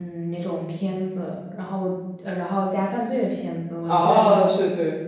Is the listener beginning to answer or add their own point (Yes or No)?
Yes